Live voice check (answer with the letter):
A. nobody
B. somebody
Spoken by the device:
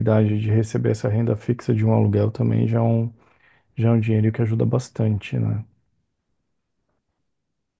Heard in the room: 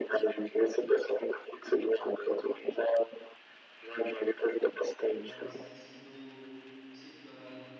B